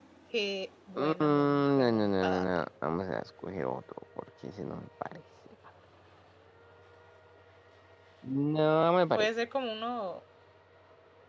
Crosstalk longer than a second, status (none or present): present